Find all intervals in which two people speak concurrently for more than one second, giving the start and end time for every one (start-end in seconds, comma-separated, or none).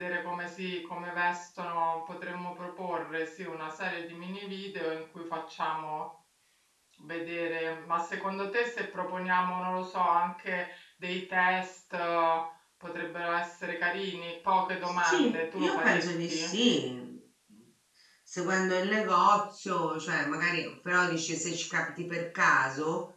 14.8-16.5